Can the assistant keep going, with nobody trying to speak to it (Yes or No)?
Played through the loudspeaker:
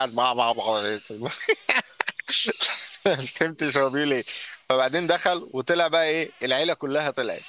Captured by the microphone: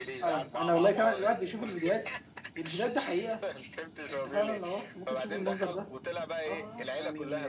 No